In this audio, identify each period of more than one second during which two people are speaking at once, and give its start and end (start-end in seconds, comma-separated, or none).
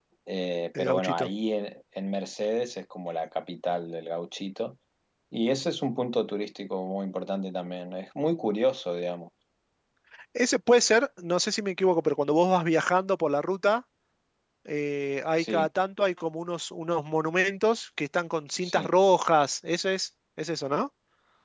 none